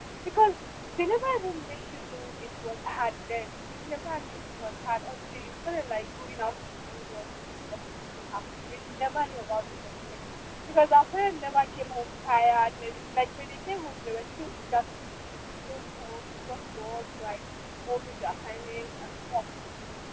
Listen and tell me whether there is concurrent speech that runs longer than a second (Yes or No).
No